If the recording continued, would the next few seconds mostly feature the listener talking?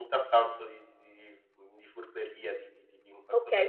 Yes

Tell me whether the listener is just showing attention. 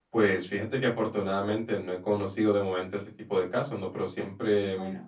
Yes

